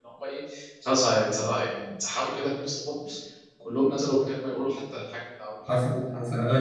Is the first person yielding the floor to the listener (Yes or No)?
Yes